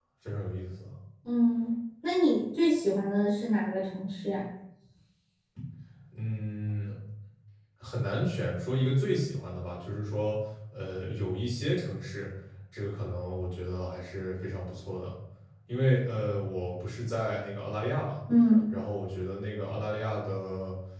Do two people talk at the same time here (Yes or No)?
No